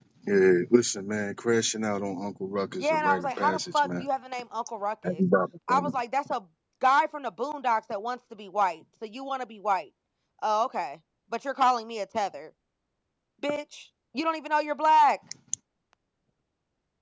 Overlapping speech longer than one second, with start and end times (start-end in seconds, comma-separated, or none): 2.8-4.0